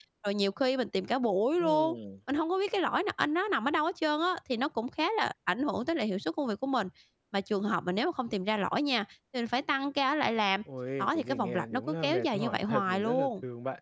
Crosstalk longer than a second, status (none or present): present